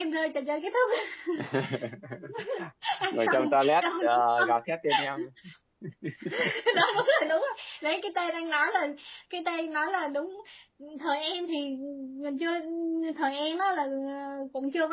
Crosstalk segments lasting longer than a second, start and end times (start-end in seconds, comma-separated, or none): 3.1-4.5